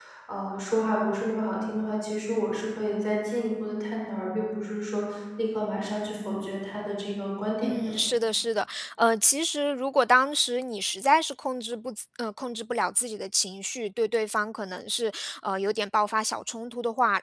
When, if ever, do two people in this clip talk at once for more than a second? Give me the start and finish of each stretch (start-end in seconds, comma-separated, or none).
none